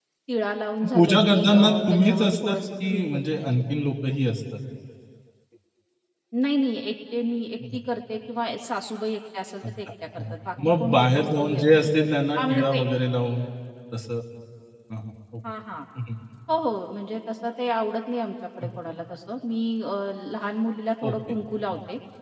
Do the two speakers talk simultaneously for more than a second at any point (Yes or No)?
Yes